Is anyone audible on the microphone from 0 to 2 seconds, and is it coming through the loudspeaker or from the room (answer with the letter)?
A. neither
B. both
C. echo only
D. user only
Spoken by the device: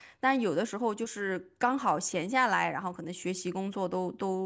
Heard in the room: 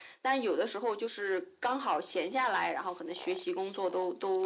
C